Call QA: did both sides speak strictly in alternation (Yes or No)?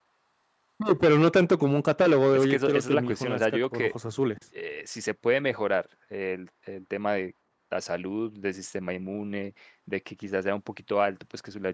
No